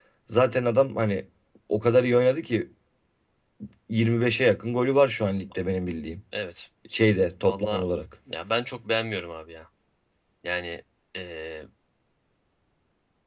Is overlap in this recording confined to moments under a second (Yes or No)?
Yes